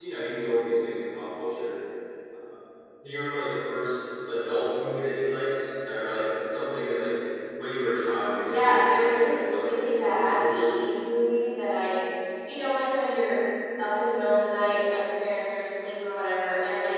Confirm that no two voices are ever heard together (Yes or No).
No